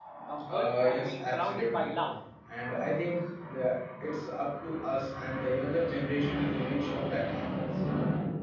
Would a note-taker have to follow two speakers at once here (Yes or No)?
Yes